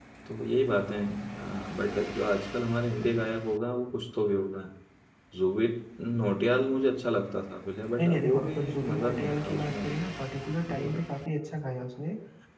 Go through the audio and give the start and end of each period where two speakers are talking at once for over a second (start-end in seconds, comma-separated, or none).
8.0-10.0